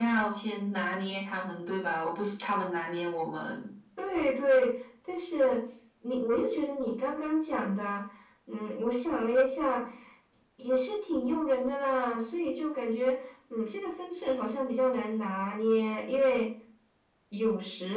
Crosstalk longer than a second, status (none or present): none